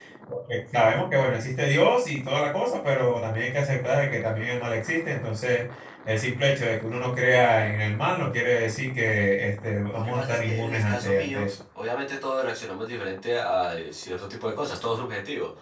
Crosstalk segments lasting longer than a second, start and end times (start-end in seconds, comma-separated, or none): 9.9-11.5